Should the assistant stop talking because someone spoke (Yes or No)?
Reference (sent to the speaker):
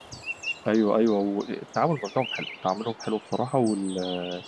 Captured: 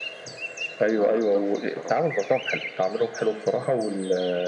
Yes